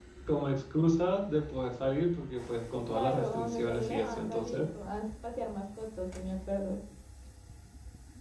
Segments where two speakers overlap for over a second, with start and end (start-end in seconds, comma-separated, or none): 2.9-4.6